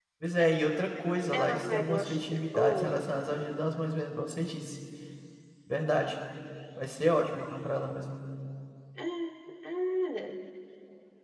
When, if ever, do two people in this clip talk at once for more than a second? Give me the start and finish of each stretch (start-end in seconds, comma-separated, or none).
1.3-3.1